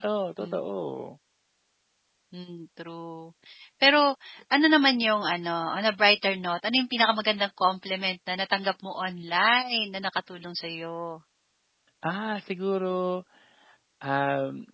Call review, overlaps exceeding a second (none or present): none